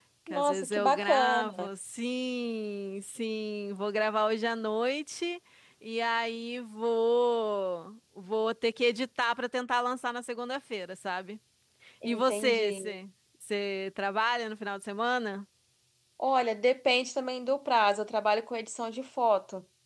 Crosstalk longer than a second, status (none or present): present